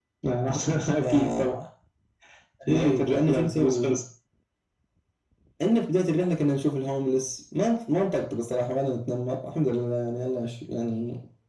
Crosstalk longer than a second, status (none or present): present